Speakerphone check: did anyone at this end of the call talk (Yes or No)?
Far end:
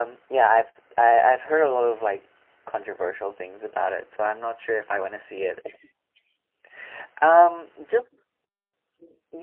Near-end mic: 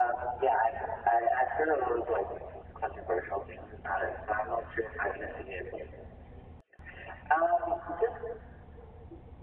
No